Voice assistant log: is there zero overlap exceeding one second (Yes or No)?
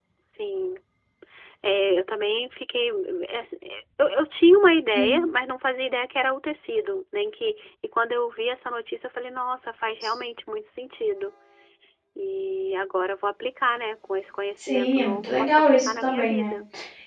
No